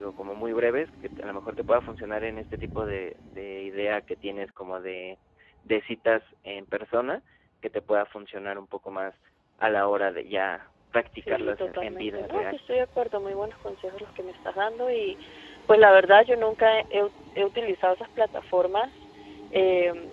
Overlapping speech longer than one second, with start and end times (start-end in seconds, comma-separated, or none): 11.3-12.6